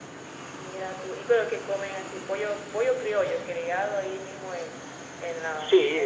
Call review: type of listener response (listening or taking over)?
taking over